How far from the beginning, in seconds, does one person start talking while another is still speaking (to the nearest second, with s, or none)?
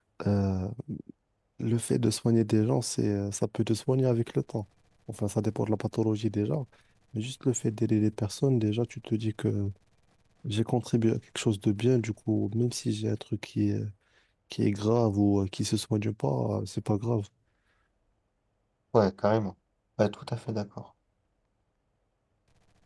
none